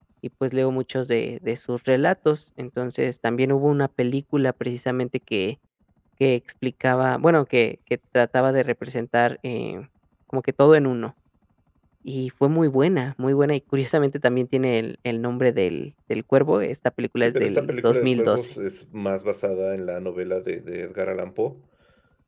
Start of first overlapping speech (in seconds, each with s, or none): 17.2 s